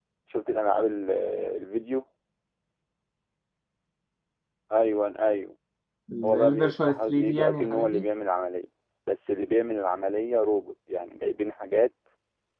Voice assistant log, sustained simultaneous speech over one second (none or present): present